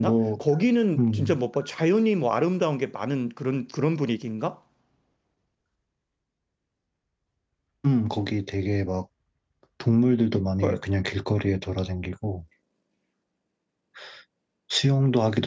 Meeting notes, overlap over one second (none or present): none